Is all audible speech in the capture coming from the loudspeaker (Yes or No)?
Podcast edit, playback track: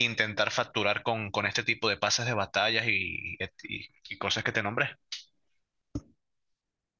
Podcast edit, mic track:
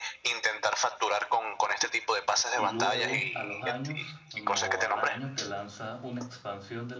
No